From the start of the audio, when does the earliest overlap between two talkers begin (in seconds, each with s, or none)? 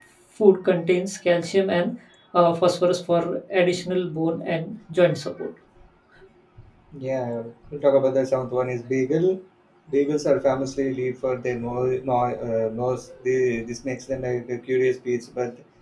none